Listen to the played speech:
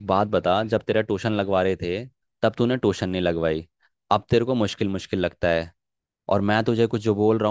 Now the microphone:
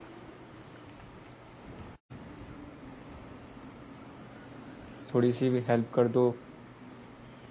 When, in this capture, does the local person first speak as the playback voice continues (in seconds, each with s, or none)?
5.1 s